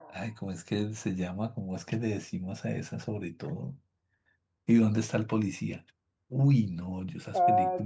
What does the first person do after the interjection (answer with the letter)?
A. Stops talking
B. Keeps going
B